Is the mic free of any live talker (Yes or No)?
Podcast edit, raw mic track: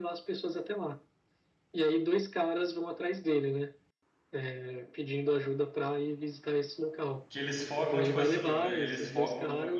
No